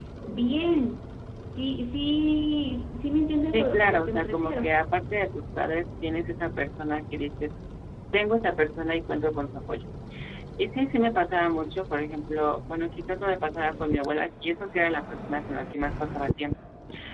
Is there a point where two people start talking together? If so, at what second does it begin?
3.5 s

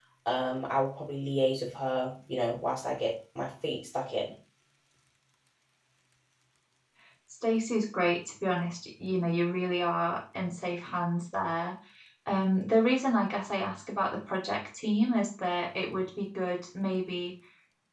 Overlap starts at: none

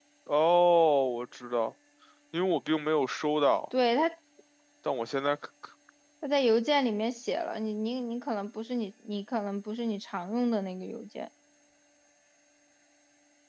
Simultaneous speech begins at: none

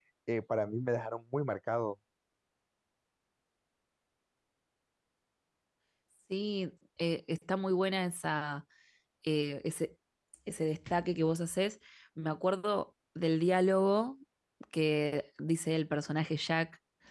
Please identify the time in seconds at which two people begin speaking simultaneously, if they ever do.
none

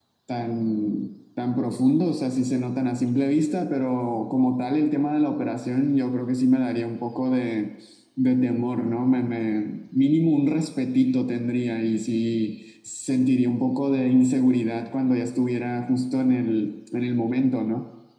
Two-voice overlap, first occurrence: none

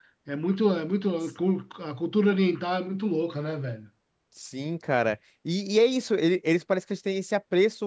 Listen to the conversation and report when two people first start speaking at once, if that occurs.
none

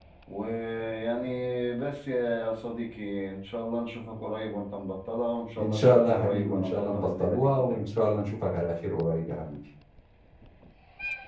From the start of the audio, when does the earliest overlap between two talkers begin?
5.6 s

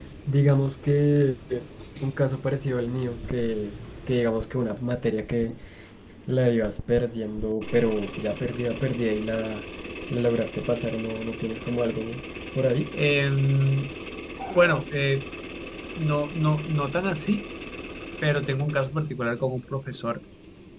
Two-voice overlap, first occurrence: none

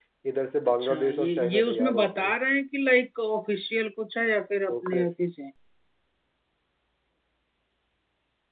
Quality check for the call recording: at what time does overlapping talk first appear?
0.8 s

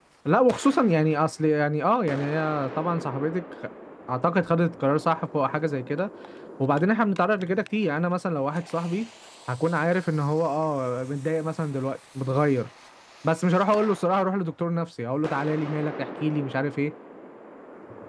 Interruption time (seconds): none

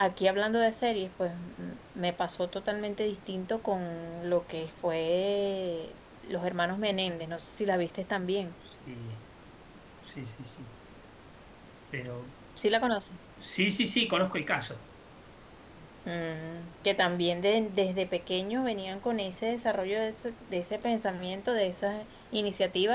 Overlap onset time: none

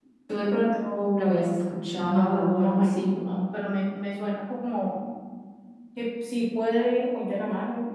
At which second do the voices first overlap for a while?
2.0 s

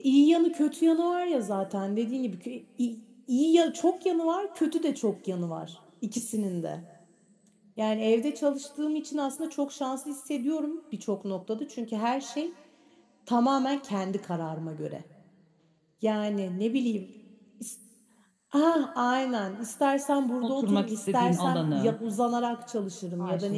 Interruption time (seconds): 20.4 s

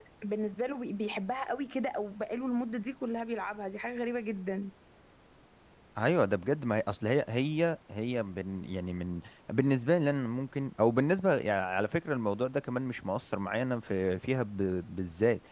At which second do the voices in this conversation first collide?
none

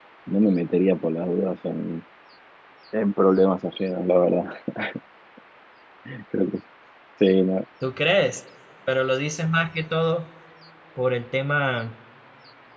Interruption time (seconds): none

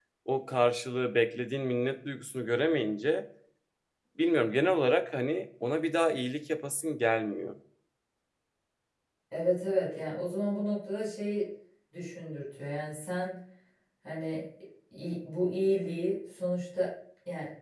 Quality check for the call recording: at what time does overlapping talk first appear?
none

